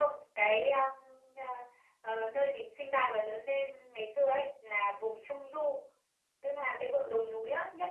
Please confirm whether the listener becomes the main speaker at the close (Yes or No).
No